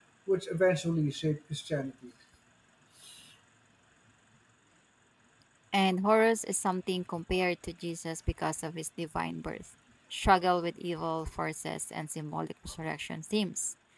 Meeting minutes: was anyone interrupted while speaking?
No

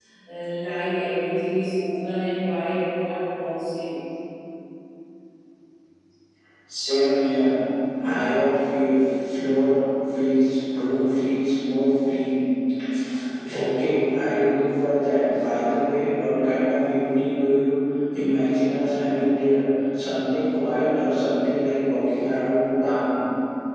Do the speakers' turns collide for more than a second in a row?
No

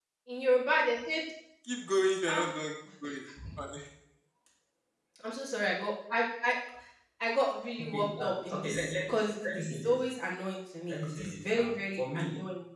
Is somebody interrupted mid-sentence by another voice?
Yes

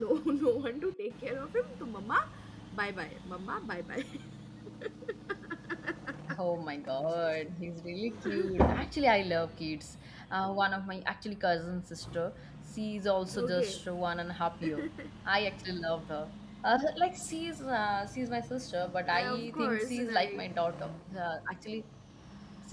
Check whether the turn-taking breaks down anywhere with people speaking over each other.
Yes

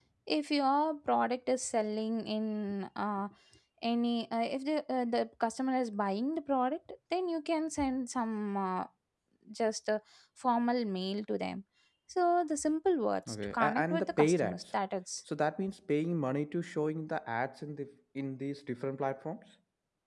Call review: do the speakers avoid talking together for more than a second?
No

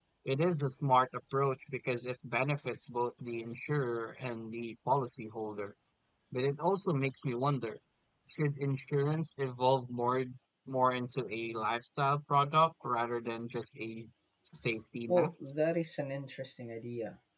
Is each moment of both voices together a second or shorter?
Yes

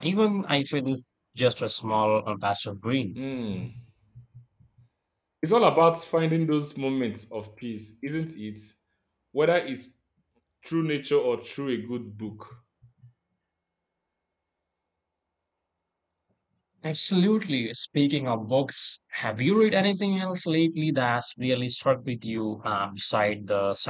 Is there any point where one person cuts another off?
No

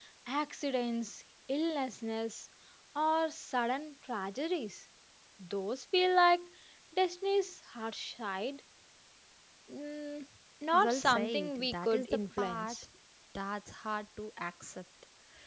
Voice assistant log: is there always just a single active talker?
No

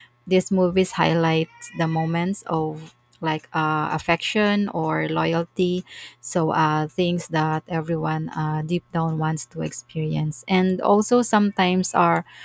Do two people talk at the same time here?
No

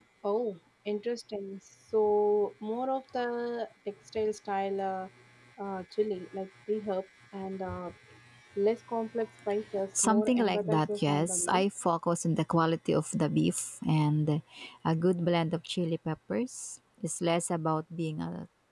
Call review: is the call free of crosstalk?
No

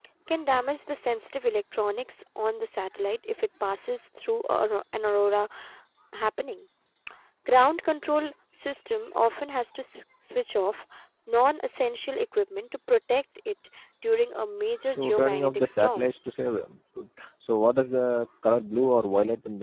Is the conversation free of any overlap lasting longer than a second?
No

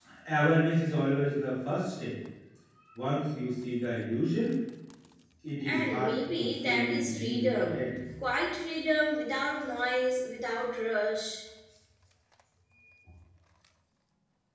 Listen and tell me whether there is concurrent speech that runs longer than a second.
Yes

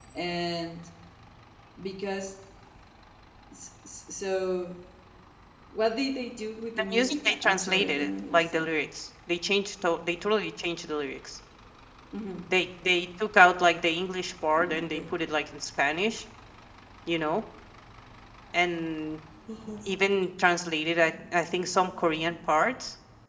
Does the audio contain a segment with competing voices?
Yes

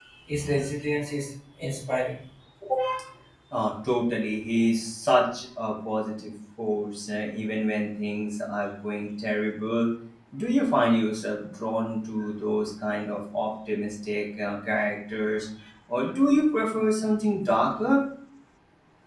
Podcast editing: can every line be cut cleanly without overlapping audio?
Yes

